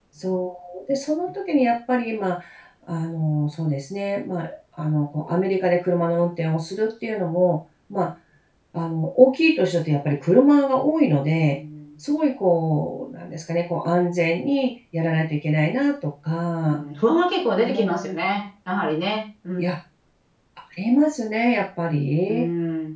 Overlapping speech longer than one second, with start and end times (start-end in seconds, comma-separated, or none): none